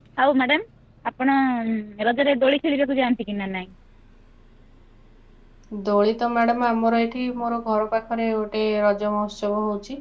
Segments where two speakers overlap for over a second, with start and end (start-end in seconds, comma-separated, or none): none